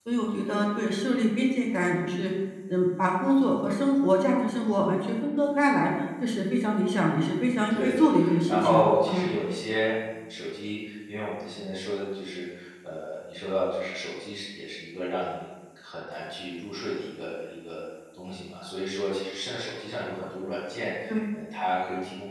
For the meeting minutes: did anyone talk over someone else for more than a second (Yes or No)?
Yes